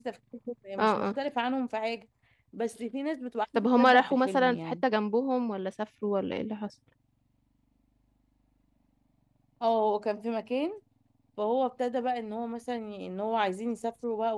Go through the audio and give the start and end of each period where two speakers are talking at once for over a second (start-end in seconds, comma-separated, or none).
3.5-4.8